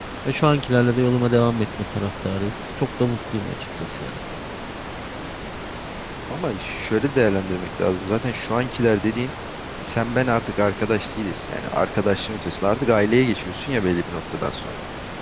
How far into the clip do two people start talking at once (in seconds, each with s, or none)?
none